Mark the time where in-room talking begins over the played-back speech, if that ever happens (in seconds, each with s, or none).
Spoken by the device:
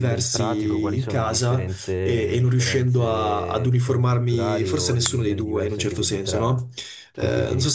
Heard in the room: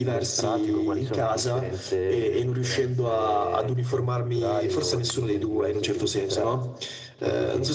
none